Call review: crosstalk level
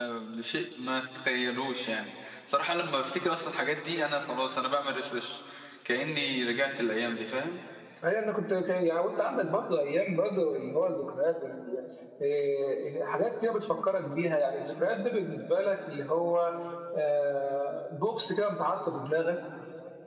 none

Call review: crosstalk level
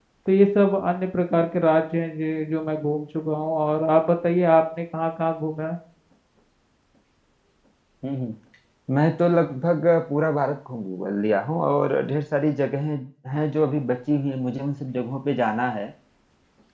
none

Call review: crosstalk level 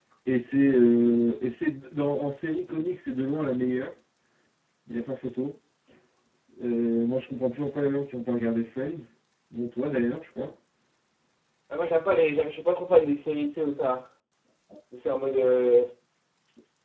none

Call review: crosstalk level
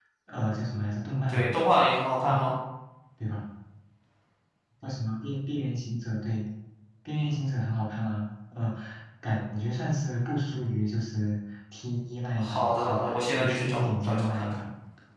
present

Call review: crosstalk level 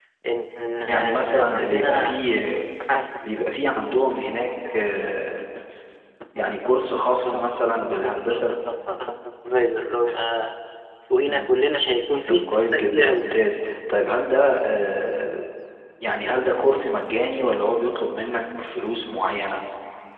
present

